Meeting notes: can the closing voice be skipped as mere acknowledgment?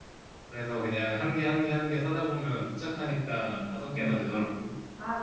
No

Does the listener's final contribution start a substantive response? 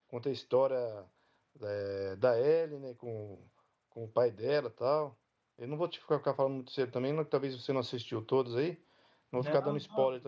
Yes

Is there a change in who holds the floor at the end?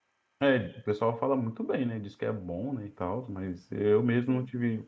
No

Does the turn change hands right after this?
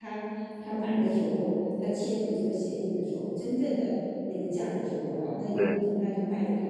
No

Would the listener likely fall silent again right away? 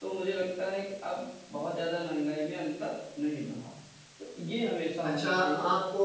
No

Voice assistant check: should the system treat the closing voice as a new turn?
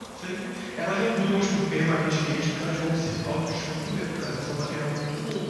Yes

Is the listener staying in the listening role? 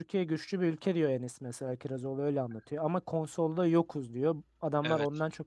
Yes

